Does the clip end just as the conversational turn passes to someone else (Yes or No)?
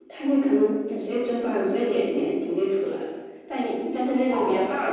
No